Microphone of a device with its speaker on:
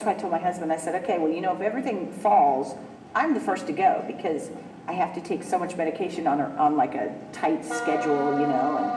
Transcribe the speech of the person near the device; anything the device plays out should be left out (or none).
none